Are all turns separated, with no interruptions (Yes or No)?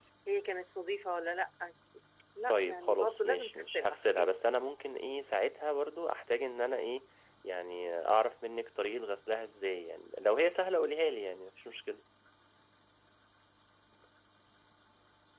No